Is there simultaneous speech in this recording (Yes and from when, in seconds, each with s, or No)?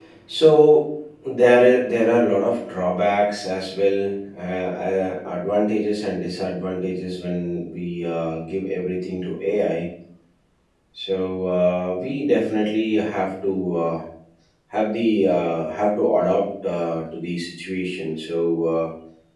No